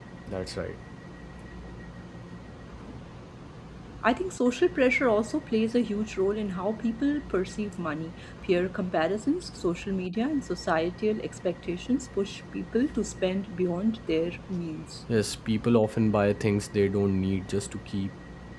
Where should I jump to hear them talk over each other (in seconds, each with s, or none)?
none